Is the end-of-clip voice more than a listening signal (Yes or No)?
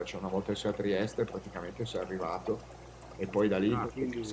Yes